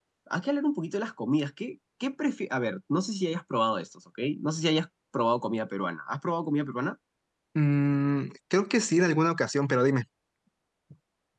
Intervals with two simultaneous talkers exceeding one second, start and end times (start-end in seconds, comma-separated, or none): none